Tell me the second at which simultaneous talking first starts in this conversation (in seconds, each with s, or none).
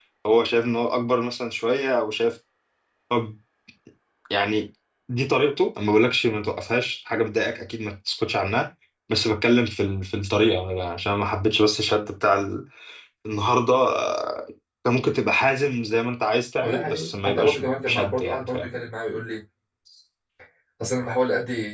16.6 s